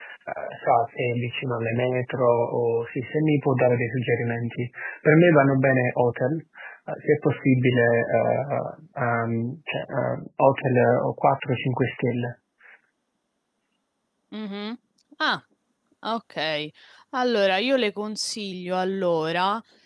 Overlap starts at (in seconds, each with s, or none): none